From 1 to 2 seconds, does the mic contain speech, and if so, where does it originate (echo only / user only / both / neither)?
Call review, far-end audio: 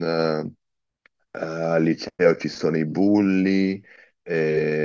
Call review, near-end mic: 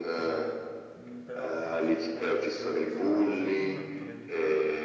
both